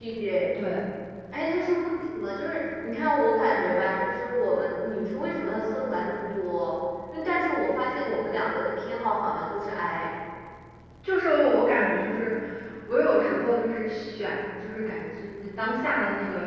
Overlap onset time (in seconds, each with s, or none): none